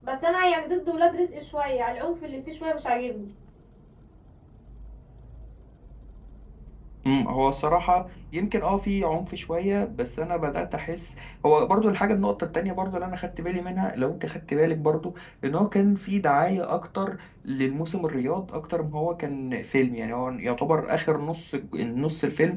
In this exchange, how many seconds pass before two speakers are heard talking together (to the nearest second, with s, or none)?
none